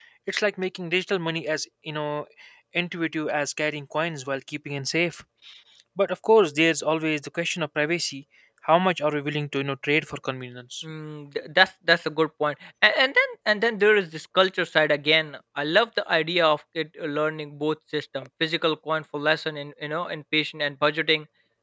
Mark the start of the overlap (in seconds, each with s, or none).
none